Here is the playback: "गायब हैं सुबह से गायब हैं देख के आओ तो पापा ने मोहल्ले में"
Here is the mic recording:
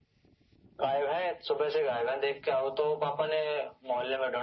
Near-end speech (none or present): none